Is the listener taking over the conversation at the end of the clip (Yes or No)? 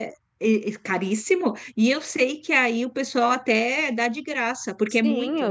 Yes